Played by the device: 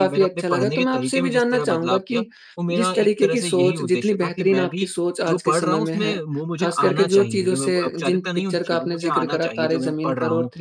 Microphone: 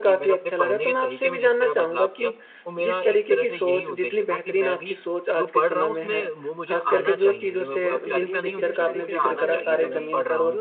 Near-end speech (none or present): present